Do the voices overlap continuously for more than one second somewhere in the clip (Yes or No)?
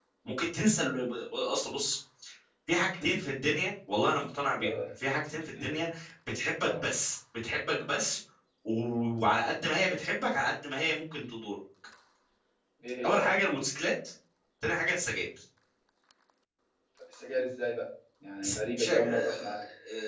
Yes